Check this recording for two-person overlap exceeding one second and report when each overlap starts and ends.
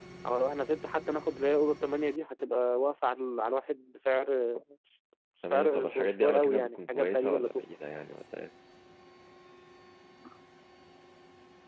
5.5-7.6

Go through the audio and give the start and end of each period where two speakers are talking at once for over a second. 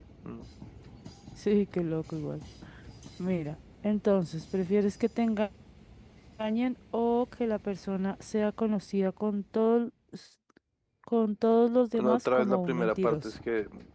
11.9-13.3

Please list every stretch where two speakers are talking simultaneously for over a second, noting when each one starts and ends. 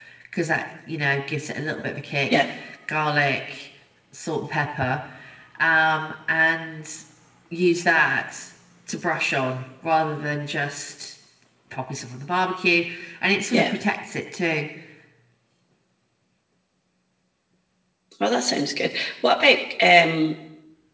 none

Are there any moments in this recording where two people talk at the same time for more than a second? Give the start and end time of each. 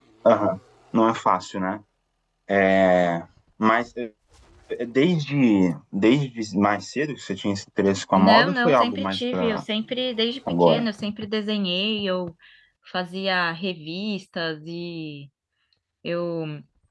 8.1-9.6

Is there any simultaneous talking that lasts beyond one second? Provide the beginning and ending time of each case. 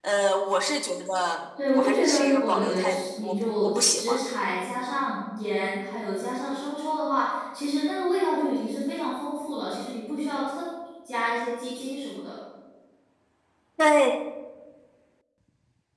1.7-4.2

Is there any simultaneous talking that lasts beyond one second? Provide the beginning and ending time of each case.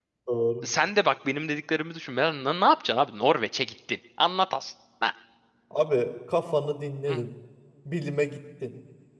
none

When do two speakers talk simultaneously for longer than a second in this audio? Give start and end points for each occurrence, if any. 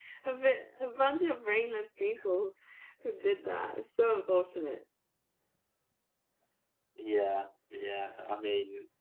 none

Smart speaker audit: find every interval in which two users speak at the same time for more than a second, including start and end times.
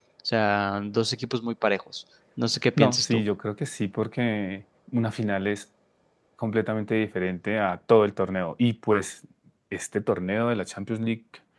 none

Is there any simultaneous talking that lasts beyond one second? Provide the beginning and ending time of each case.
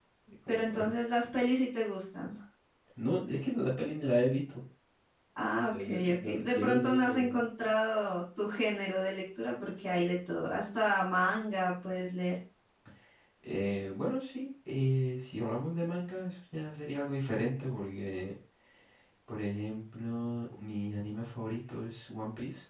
5.7-7.2

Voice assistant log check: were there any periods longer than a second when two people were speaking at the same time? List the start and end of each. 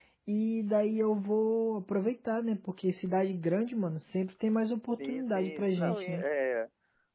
5.0-6.2

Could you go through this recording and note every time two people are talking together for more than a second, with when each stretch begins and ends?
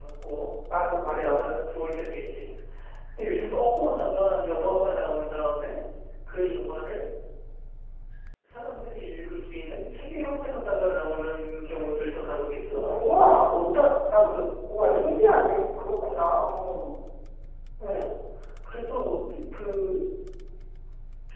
none

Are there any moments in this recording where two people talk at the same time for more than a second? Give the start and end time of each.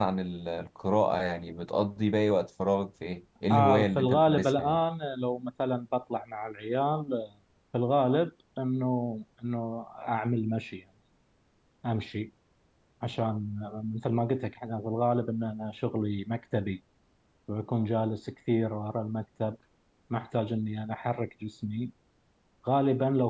3.5-4.8

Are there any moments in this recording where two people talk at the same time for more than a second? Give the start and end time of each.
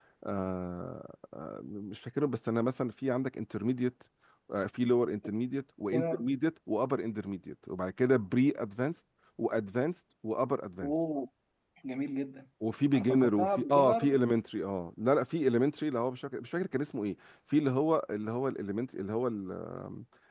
12.9-14.2

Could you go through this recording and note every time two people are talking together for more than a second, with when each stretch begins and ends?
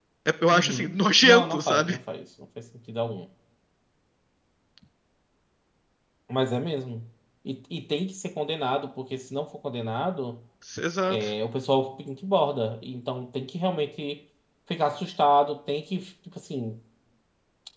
0.5-2.0

